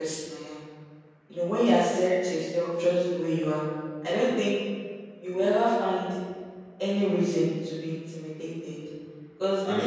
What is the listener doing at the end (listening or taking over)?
listening